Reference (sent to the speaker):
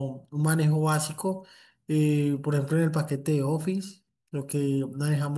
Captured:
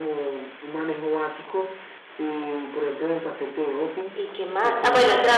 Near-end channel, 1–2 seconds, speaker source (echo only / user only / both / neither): echo only